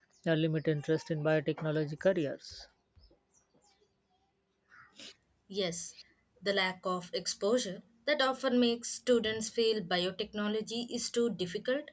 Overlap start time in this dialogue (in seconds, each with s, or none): none